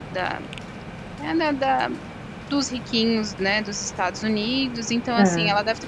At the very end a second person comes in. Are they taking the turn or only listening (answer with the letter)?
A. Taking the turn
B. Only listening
B